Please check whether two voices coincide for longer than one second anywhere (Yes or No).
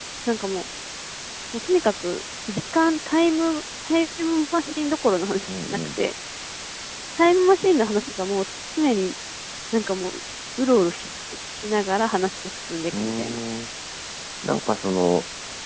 No